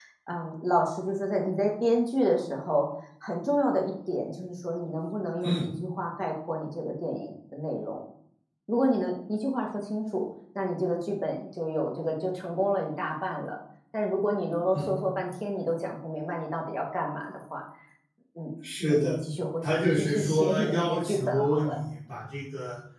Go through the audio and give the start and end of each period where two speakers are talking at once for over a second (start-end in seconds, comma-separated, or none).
19.6-21.8